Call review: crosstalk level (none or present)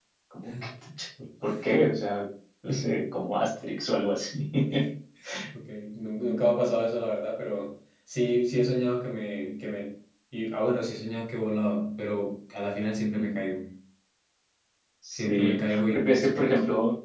present